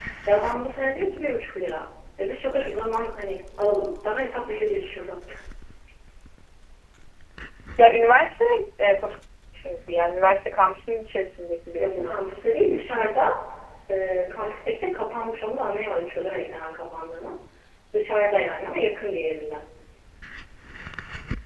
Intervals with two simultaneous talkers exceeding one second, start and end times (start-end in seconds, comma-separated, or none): none